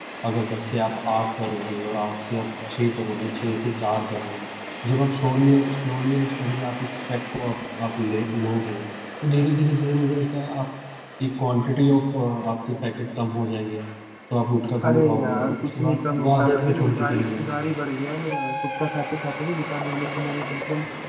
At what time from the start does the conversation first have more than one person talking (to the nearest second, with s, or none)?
15 s